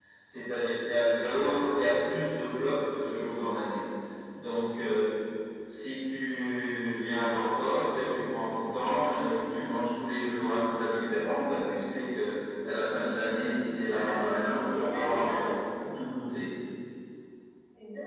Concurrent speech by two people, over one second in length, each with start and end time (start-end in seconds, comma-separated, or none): 13.9-15.5